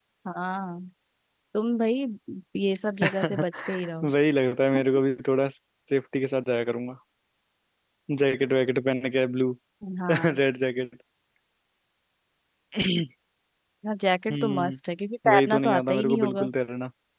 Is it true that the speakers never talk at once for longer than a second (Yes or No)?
No